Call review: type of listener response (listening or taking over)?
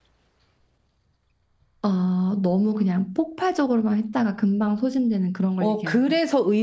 taking over